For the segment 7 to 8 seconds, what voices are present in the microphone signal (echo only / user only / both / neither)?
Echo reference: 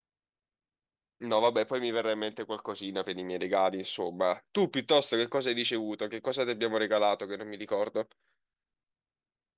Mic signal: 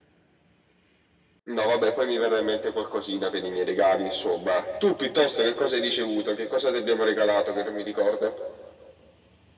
echo only